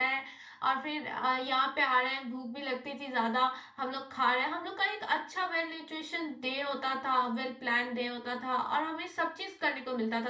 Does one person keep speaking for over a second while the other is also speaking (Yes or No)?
No